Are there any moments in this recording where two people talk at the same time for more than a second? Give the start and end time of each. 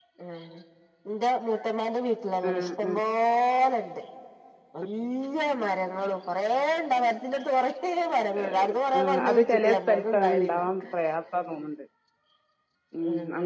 9.0-10.6

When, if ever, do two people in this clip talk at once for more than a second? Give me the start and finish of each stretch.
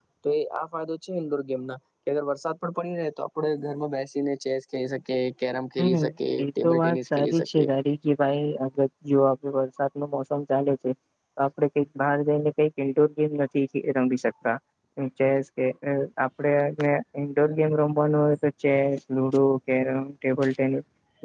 6.4-7.7

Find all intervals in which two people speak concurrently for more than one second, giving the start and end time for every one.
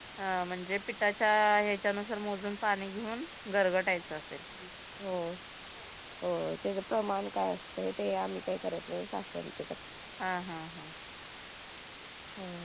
none

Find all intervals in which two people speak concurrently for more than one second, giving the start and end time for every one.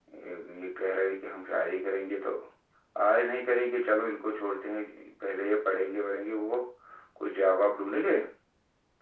none

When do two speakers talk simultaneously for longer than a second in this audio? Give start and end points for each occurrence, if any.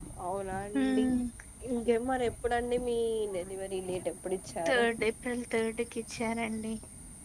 none

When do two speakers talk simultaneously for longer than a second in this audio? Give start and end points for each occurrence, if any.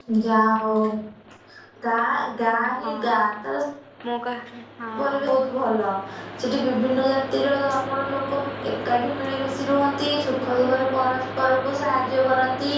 none

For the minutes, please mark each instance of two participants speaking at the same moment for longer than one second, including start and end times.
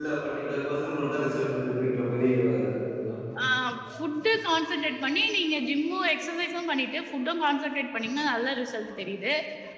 none

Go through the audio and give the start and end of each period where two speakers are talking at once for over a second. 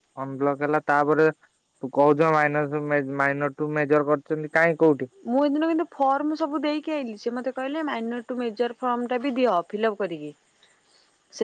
none

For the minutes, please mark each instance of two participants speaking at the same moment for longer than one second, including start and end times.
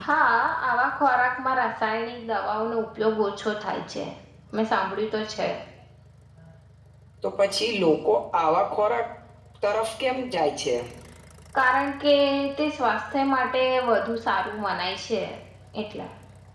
none

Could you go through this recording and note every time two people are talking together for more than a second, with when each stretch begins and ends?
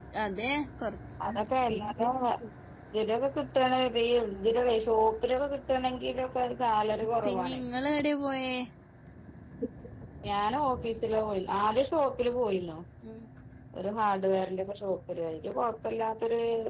none

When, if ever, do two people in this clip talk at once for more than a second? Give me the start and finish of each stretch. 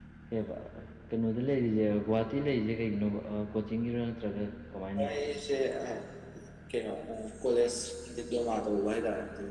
none

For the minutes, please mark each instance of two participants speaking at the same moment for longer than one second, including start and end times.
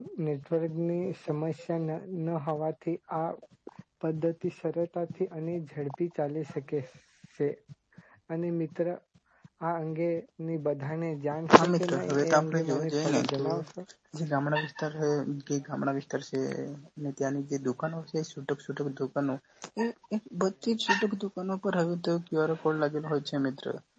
11.5-13.4

